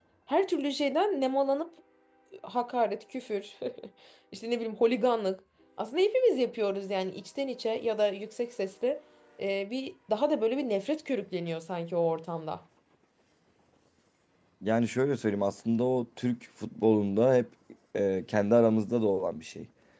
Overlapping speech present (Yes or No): No